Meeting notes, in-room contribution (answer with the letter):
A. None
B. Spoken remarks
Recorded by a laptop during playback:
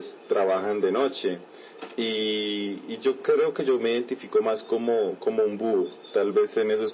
A